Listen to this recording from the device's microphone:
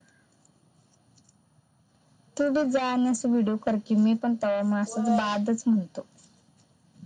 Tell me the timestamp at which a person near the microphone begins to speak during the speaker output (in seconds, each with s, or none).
4.9 s